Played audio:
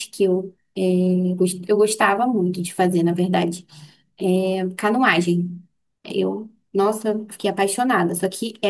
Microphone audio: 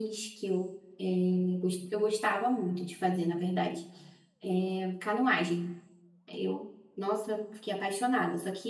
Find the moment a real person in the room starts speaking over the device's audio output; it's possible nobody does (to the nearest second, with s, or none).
none